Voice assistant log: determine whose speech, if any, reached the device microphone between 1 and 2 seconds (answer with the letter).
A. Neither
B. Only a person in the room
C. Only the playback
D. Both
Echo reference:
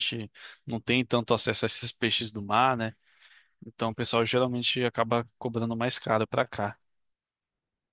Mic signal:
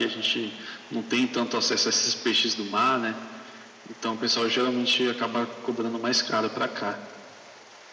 C